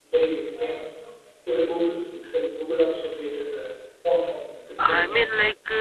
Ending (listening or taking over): taking over